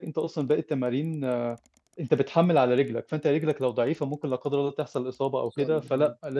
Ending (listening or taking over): listening